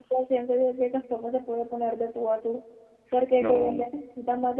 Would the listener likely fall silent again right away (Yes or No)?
Yes